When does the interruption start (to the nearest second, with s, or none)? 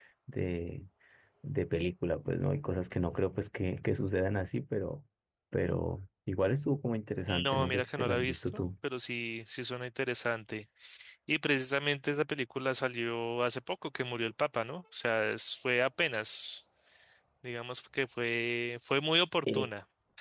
7 s